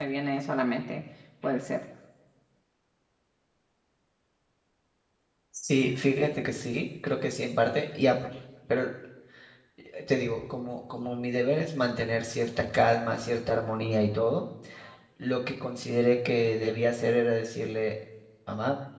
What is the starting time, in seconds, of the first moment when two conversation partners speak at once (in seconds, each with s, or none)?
none